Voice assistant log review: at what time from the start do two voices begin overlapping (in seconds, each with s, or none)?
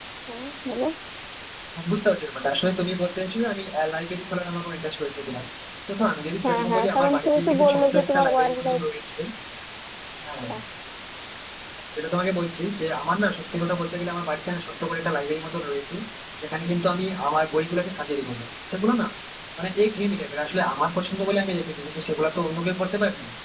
6.4 s